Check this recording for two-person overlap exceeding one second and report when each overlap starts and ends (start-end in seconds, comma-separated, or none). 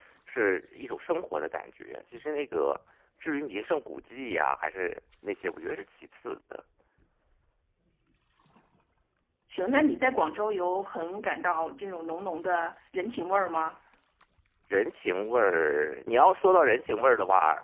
none